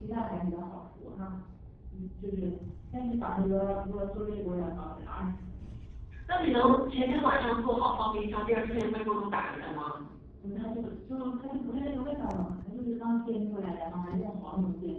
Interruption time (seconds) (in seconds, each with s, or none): none